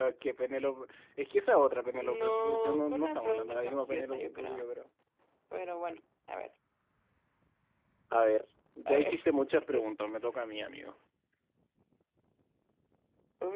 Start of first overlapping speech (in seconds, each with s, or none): 2.0 s